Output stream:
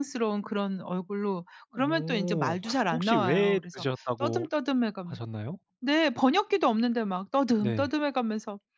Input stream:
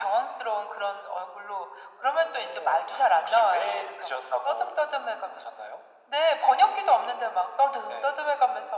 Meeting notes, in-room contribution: none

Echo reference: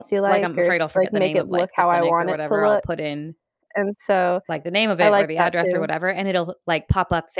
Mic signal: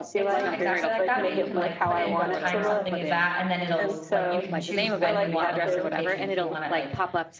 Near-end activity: present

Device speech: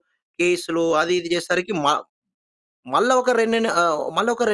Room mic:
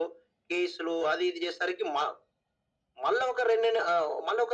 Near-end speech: none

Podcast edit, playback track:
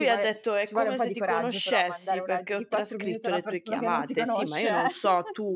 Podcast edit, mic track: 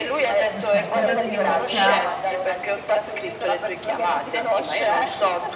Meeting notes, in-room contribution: present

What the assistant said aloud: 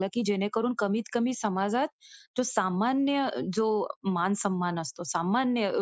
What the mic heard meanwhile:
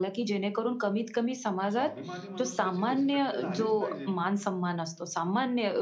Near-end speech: present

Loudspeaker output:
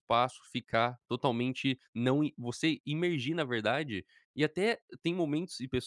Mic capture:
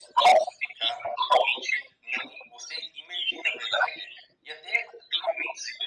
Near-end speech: none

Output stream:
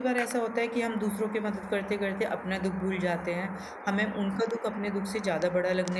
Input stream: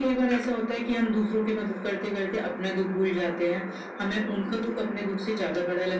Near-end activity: none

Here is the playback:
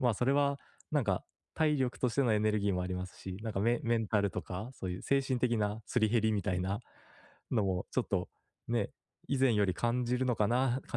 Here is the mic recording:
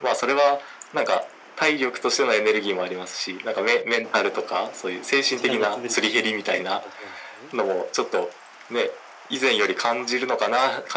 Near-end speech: present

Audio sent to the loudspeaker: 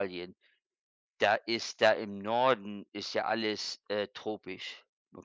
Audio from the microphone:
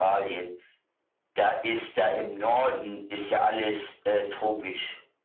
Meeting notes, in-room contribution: none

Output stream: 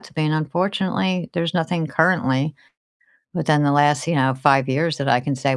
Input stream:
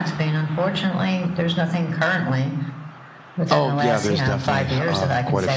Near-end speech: present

